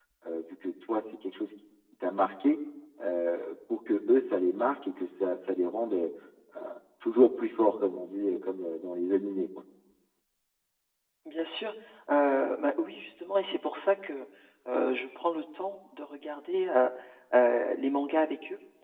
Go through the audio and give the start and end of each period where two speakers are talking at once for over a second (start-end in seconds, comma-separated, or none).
none